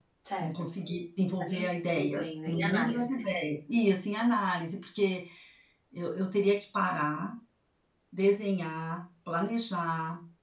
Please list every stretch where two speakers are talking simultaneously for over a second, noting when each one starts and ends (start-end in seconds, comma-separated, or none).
1.4-3.0